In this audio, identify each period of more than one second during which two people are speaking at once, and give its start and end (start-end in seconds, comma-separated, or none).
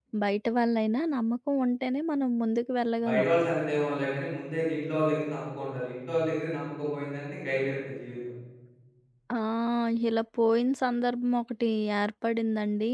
none